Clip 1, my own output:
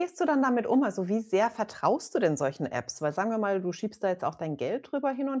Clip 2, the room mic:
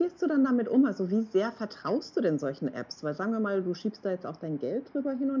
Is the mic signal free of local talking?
Yes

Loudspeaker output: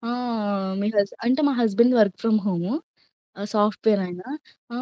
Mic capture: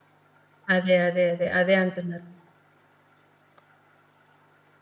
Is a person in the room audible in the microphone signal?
Yes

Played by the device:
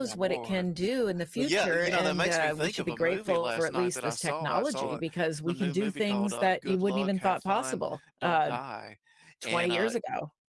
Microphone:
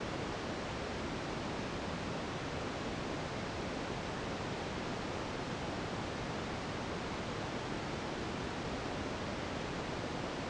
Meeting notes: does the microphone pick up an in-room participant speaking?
No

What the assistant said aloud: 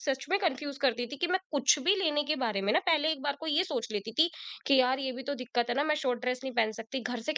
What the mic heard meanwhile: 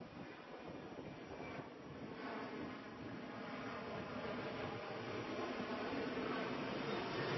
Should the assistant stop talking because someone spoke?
No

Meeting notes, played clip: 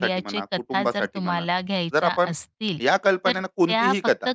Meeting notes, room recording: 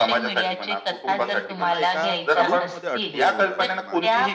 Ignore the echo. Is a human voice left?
Yes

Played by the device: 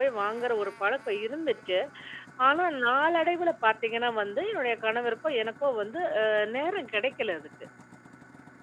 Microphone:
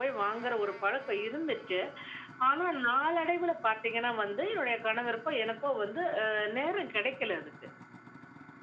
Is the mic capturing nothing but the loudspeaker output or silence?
Yes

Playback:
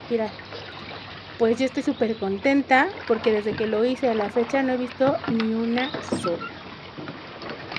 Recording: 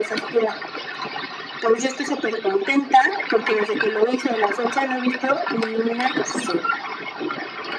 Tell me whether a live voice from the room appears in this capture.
No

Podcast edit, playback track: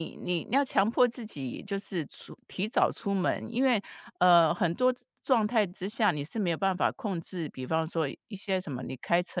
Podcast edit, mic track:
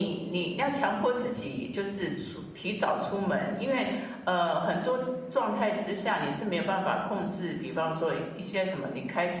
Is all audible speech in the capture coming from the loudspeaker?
Yes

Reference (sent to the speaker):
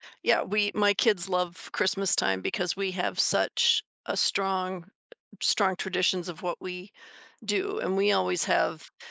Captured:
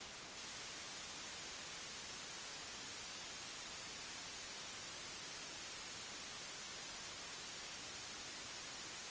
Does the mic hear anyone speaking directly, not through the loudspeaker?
No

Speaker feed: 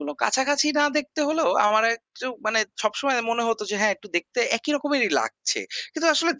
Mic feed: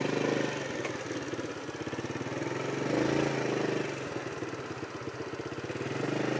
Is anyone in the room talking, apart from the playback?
No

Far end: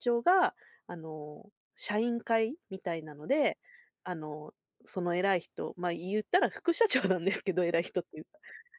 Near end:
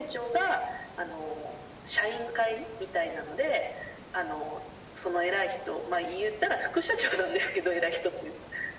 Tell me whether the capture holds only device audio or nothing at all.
Yes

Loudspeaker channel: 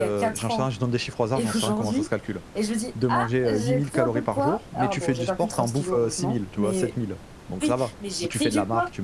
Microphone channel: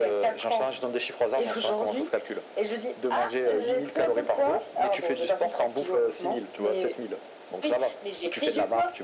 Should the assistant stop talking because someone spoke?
No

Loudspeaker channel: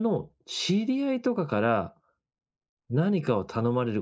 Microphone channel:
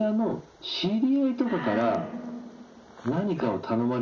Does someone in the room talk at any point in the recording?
Yes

